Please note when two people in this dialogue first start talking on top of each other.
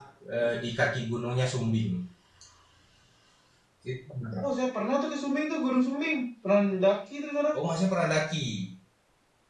none

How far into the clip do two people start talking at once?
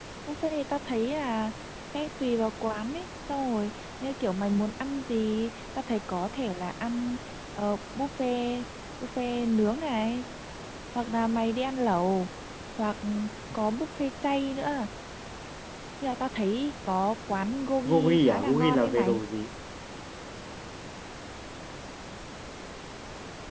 18 s

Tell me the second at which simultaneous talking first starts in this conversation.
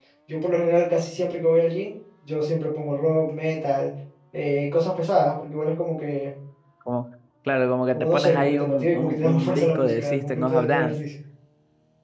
8 s

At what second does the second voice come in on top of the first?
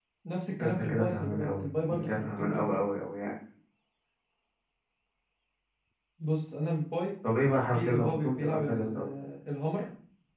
1 s

